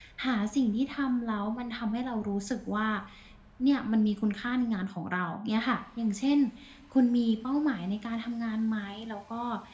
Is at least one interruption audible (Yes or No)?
No